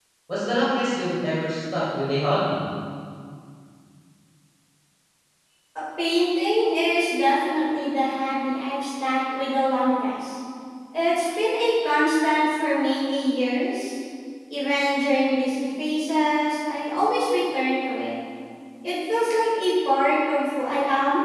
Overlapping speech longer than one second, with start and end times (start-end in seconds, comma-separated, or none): none